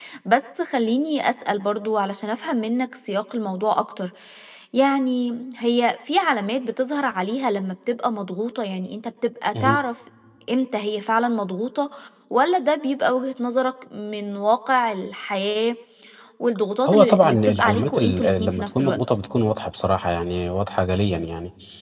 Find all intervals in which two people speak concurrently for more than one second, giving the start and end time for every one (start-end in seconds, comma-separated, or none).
16.9-19.0